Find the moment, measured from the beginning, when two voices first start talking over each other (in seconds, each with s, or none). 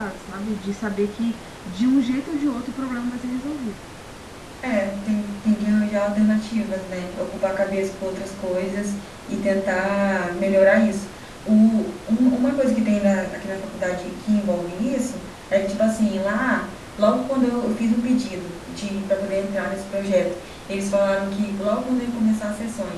none